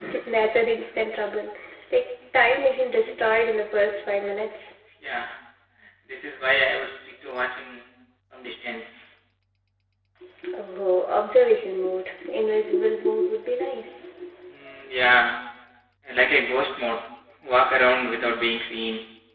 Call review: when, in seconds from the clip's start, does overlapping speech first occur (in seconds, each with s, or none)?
none